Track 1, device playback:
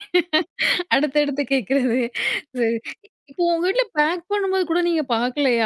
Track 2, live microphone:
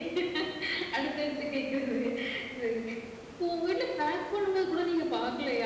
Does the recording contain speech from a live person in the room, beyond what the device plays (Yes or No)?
No